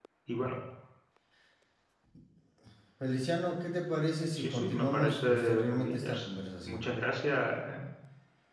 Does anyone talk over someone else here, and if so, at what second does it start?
4 s

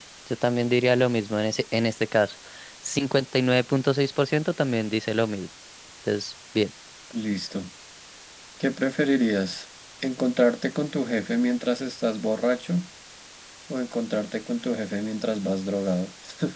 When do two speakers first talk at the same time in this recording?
none

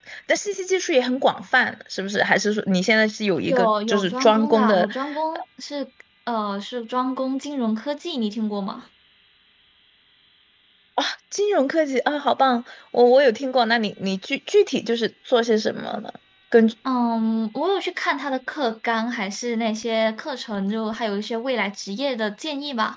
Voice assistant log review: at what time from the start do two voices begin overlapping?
3 s

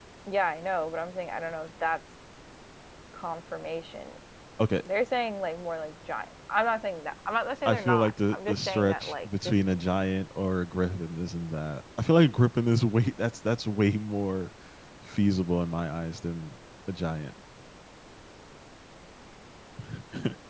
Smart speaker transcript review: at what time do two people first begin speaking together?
8 s

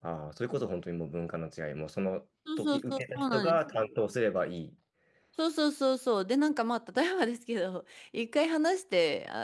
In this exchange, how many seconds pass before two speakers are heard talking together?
2 s

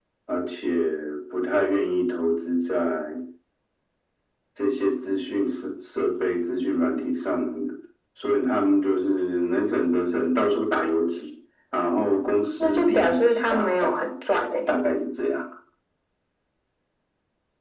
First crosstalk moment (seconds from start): 13 s

